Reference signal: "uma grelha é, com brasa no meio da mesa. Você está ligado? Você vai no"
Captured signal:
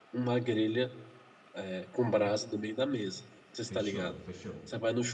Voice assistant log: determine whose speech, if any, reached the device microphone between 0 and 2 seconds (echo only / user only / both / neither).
echo only